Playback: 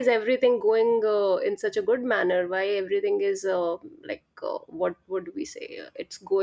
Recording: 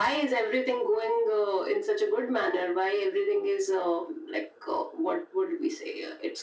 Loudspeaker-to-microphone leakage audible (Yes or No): Yes